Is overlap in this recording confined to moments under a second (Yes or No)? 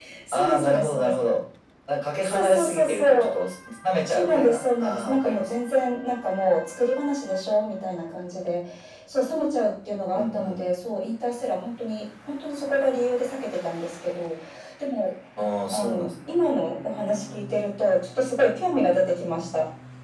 No